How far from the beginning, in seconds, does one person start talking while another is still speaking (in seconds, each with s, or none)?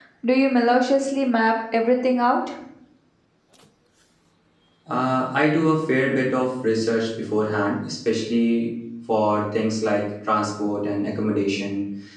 none